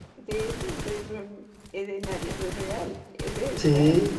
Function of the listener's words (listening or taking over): taking over